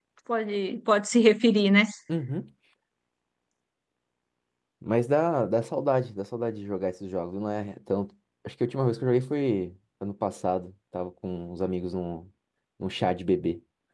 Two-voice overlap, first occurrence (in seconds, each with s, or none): none